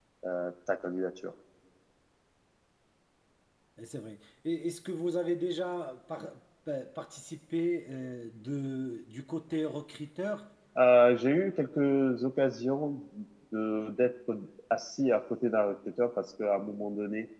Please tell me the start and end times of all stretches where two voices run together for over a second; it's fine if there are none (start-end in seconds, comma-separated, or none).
none